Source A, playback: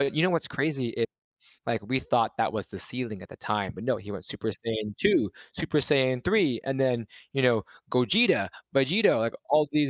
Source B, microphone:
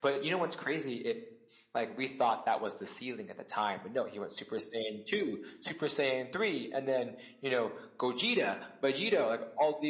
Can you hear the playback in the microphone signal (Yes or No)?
Yes